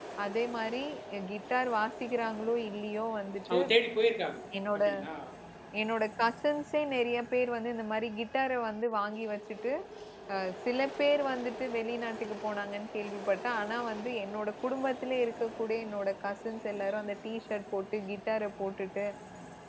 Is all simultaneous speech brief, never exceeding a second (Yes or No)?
Yes